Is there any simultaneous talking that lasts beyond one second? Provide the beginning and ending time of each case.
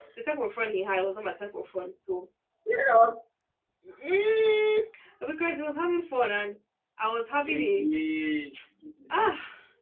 none

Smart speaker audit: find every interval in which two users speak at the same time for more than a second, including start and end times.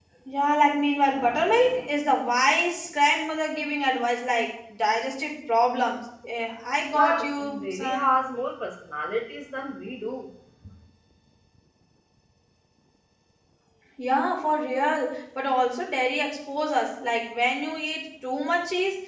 6.9-8.2

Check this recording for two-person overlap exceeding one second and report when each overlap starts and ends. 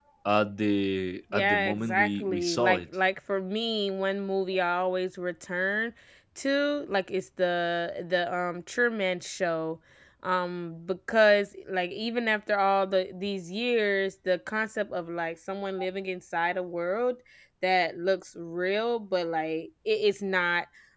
1.3-2.8

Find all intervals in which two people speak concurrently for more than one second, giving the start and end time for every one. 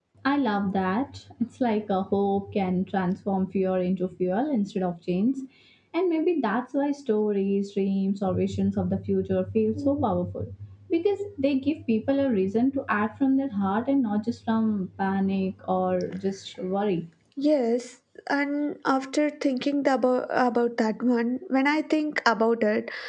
none

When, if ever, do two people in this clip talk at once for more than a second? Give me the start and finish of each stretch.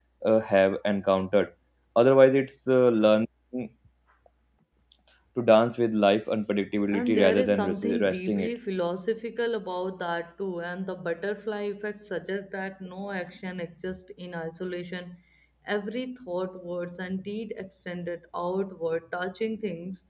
6.9-8.5

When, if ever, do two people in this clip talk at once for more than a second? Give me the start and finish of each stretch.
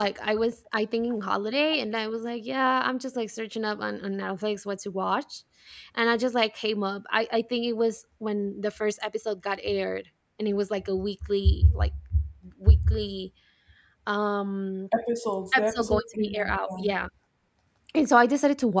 15.5-16.9

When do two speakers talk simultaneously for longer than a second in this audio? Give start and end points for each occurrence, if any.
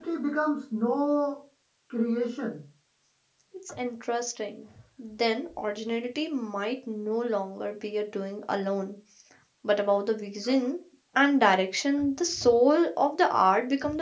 none

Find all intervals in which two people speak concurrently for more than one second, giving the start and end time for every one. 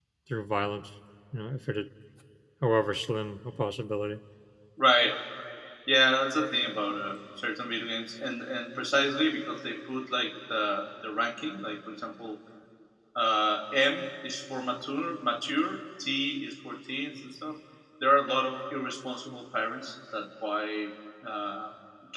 none

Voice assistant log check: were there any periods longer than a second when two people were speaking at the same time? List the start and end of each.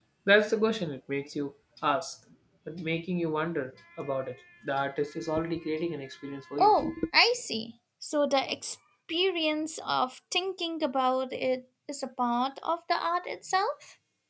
none

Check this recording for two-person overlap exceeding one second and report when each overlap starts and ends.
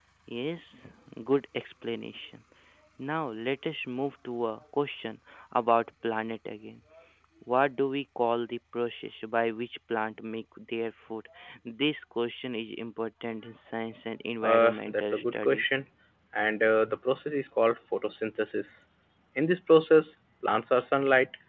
14.4-15.6

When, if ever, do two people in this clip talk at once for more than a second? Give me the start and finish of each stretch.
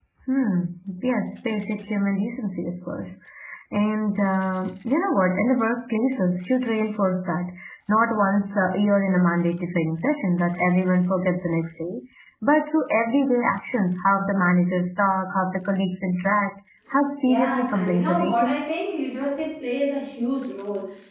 17.2-18.7

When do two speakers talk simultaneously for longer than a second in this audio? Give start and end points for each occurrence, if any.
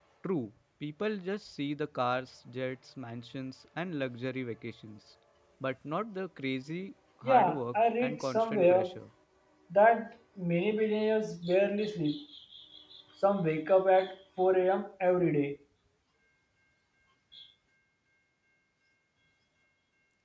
7.2-8.9

